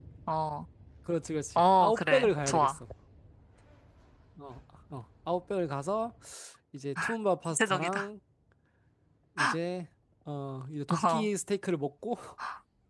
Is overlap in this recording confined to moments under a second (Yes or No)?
No